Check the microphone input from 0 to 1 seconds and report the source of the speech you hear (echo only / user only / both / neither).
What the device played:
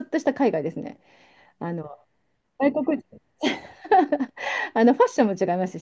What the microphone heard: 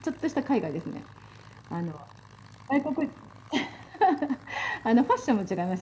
echo only